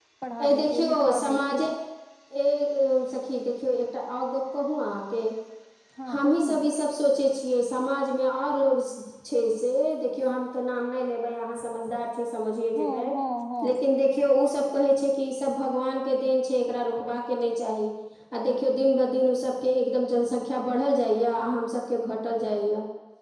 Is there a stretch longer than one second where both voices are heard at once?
Yes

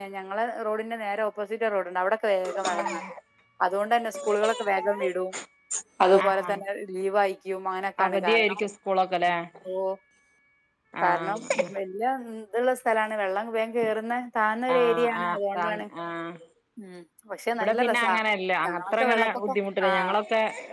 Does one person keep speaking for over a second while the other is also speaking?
Yes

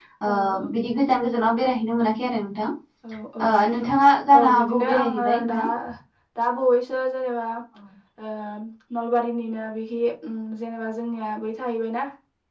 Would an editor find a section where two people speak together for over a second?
Yes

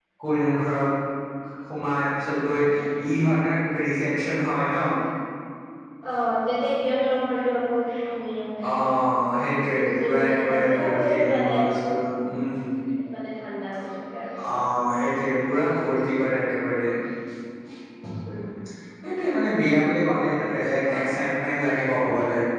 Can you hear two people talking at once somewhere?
Yes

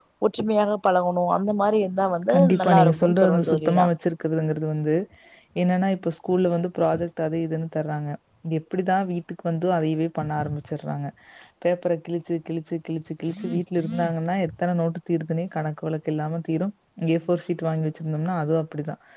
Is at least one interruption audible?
Yes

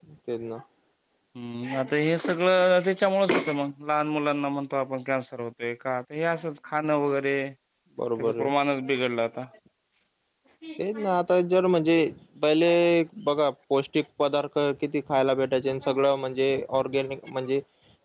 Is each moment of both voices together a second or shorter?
Yes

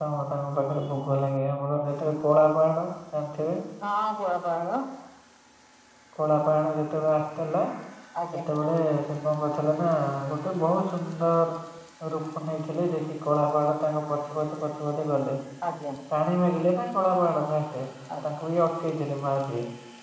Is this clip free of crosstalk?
Yes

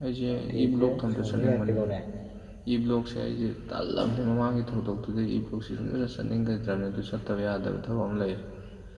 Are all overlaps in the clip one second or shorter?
No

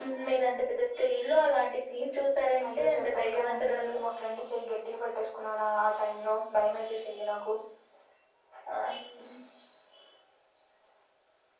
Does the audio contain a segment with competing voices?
Yes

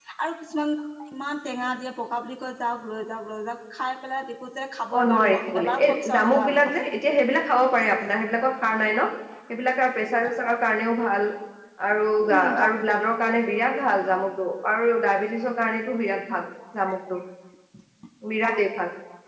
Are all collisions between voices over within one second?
No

